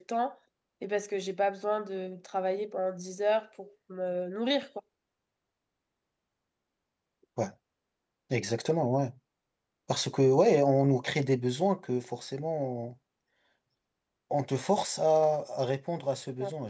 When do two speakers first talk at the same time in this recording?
none

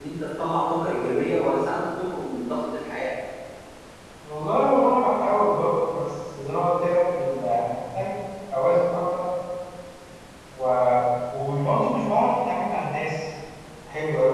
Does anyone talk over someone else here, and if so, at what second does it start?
none

